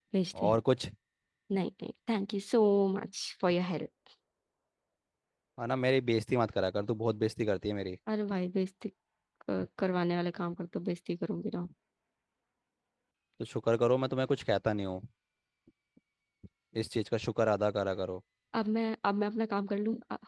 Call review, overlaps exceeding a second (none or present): none